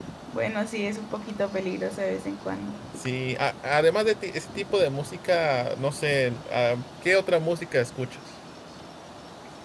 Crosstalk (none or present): none